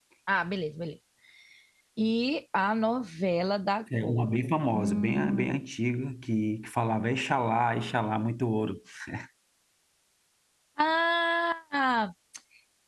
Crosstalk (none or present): present